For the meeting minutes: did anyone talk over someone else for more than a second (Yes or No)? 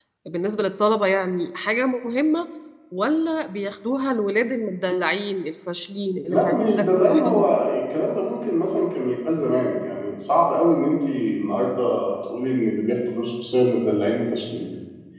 Yes